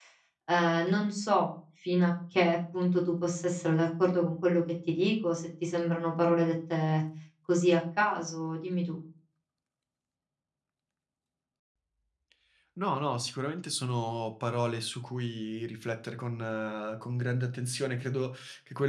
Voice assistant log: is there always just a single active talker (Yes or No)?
Yes